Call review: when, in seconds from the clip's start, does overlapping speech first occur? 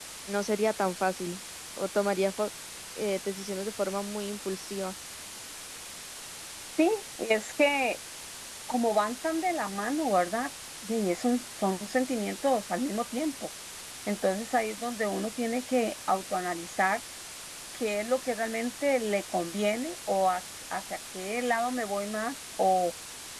none

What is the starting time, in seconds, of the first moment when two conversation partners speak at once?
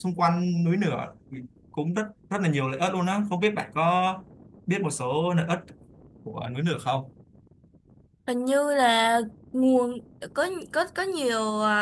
none

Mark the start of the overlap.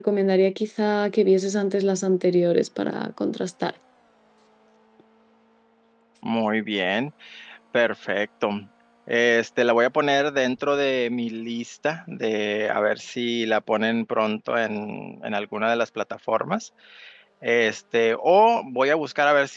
none

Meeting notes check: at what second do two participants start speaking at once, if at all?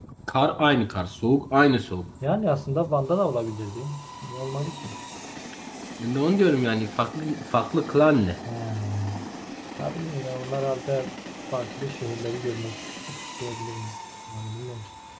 none

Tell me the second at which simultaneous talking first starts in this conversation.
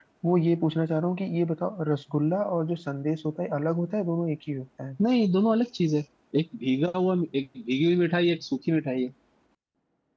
none

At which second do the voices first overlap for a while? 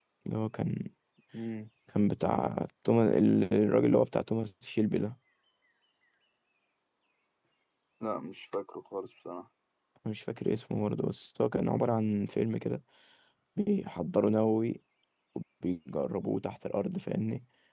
none

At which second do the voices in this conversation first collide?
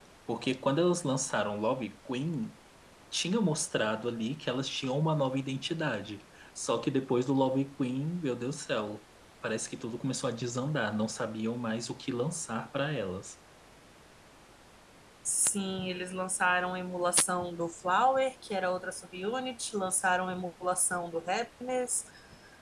none

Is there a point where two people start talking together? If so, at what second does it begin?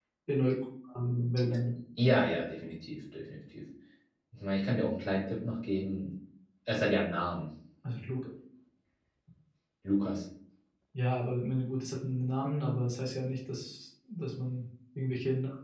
none

